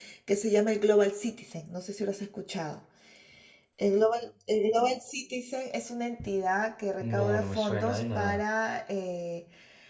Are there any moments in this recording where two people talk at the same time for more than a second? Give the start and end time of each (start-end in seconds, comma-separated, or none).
7.0-8.4